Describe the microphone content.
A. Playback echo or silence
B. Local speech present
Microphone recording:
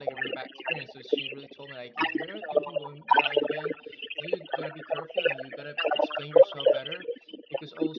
B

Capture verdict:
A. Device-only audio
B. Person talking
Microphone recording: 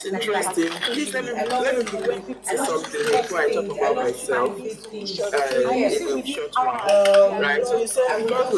B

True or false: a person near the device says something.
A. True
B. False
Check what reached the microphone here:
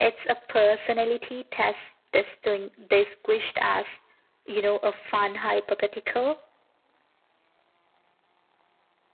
B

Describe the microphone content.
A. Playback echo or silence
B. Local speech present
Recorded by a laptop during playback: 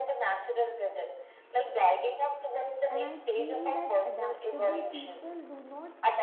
B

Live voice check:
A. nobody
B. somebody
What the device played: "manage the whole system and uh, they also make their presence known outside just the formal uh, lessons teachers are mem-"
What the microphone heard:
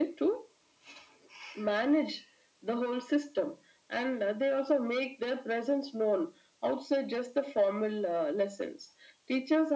A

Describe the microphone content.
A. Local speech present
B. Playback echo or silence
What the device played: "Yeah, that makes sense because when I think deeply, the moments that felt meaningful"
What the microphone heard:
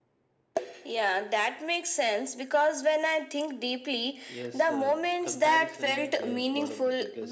A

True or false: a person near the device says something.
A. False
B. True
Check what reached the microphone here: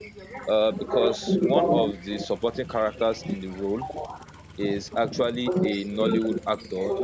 B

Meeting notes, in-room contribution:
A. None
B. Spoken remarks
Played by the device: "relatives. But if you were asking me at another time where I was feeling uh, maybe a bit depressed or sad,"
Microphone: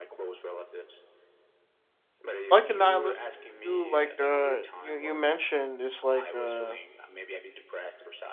B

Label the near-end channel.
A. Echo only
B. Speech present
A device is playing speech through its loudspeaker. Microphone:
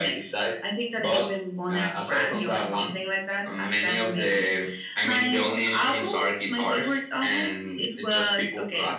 A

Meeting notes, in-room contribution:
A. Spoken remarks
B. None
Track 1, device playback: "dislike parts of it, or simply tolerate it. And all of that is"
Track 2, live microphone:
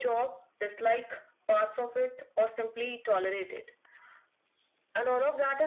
B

